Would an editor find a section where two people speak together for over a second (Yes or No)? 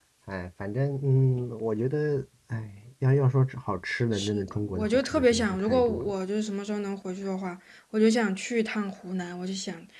Yes